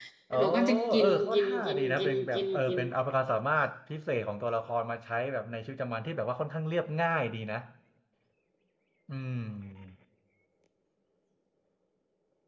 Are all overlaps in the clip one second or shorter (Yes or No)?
No